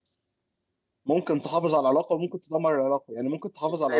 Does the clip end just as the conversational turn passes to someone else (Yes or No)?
No